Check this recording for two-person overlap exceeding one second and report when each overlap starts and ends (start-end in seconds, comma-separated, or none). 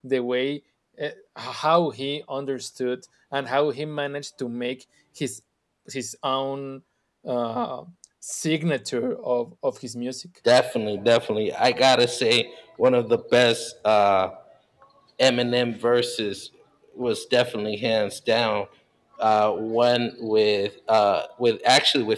none